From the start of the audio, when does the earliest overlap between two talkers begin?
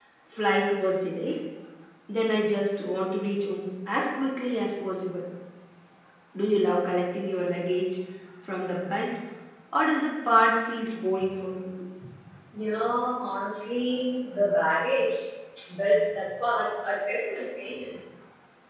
none

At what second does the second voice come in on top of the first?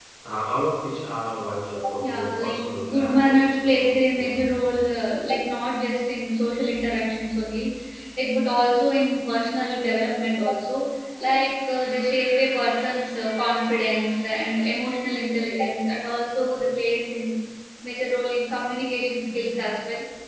2.0 s

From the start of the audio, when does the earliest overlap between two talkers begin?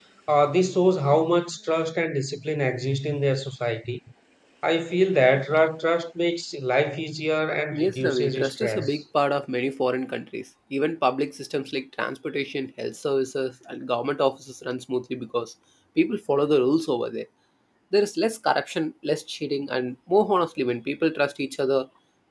7.7 s

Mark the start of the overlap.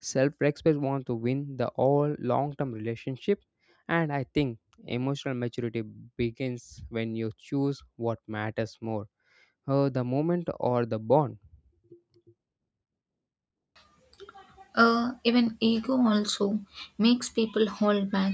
none

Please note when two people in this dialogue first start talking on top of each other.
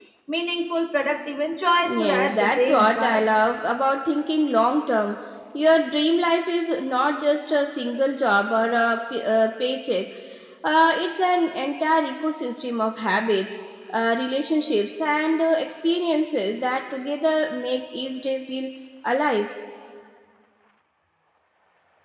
1.8 s

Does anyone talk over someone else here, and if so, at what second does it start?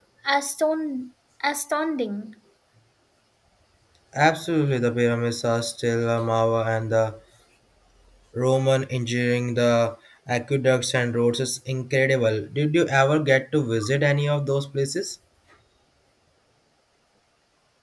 none

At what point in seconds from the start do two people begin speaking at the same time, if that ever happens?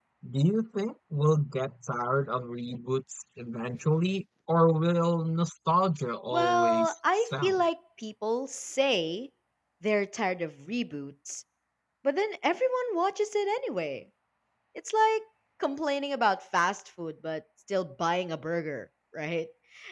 6.3 s

